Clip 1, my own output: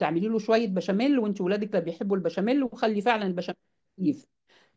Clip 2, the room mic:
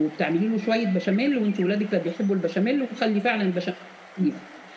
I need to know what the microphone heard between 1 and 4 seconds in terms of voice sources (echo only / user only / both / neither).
echo only